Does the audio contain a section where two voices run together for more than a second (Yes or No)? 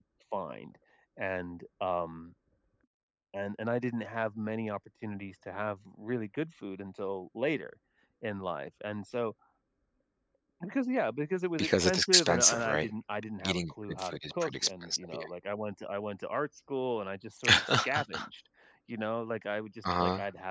Yes